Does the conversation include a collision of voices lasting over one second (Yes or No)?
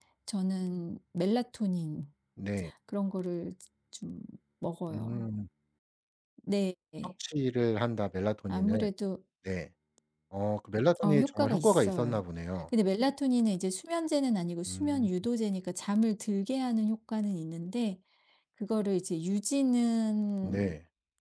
Yes